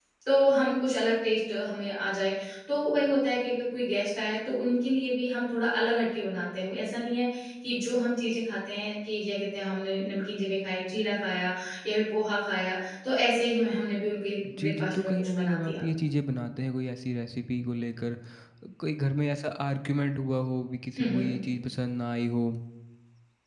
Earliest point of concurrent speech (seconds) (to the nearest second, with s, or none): 15 s